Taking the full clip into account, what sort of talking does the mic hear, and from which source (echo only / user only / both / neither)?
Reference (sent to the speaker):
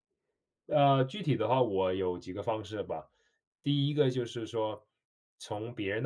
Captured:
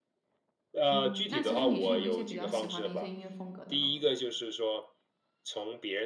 both